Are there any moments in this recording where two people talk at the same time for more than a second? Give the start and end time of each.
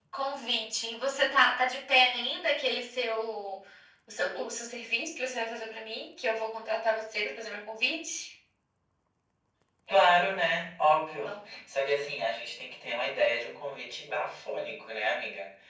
none

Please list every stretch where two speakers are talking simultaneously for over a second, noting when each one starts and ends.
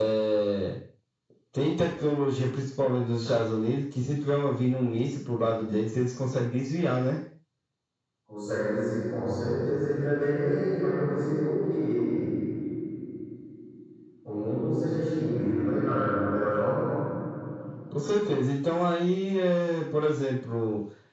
none

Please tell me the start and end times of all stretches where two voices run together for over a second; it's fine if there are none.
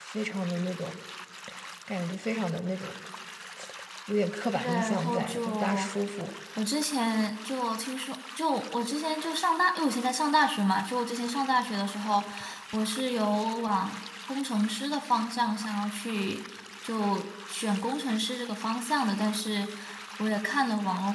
4.6-5.9

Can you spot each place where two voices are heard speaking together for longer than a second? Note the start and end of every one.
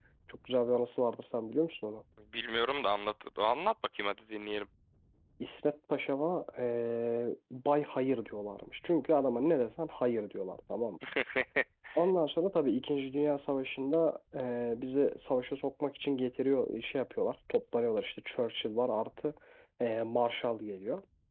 none

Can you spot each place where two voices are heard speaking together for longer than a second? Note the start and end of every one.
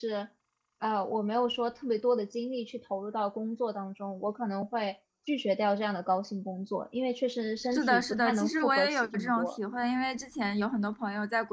7.6-9.5

